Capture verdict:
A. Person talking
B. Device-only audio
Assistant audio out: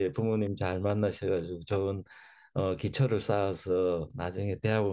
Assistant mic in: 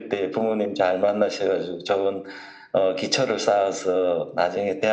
B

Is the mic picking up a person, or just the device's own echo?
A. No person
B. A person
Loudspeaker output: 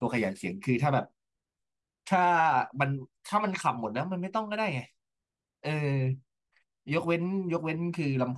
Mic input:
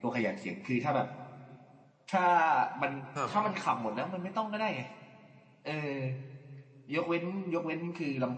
B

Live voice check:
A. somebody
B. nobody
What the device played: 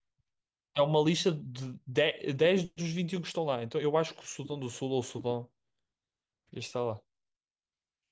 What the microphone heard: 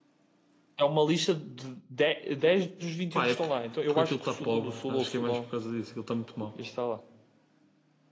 A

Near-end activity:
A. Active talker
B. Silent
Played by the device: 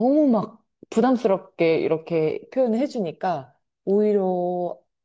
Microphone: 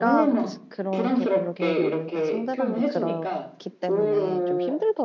A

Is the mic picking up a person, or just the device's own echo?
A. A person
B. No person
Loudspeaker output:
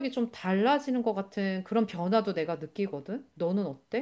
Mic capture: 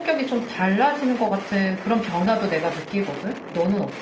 B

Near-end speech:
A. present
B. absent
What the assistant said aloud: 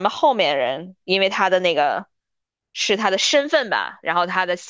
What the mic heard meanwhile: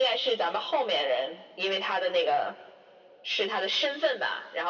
B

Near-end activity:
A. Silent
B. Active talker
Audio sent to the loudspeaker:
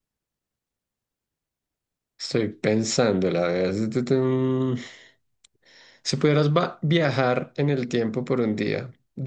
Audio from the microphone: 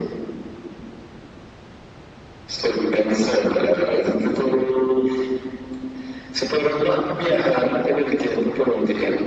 A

